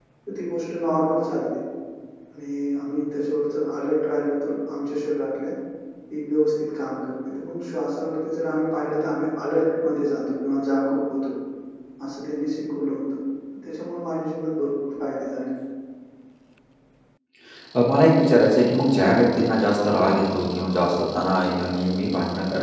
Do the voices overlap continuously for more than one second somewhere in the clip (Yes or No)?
No